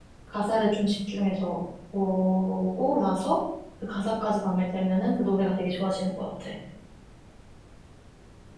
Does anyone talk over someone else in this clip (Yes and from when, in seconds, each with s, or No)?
No